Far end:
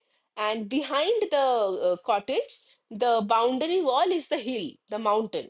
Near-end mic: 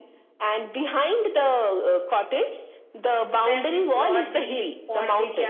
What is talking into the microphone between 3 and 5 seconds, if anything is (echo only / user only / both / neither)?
both